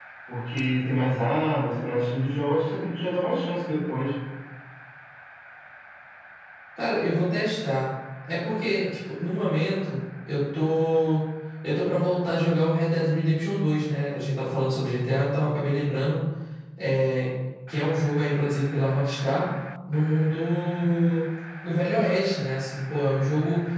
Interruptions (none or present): none